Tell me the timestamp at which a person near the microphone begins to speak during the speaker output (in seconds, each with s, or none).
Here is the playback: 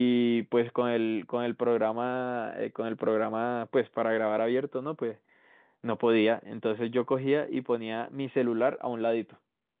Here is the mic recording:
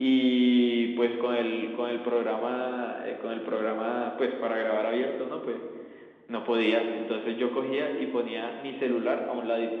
none